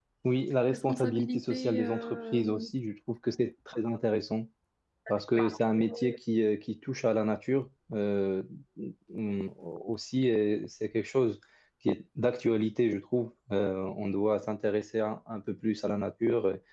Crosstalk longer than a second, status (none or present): present